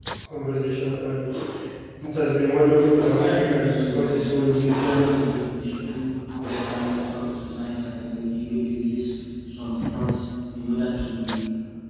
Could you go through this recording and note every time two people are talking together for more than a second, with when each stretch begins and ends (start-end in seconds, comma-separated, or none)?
3.1-4.9